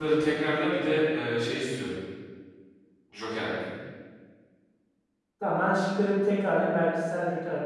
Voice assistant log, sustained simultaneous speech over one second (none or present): none